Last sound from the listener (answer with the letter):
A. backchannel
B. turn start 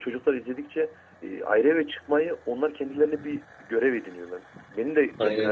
A